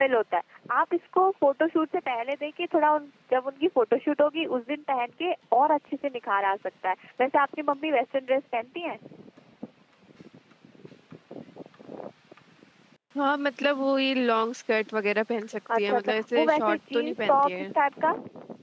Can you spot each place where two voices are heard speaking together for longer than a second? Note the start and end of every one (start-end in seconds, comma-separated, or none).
15.8-17.7